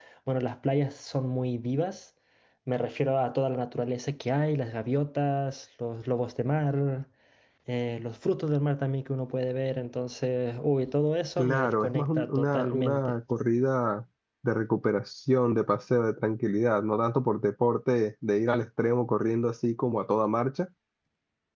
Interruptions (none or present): present